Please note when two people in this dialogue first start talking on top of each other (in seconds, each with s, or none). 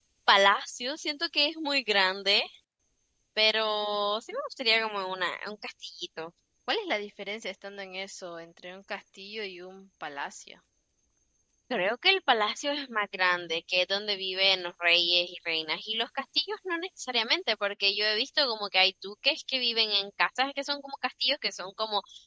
none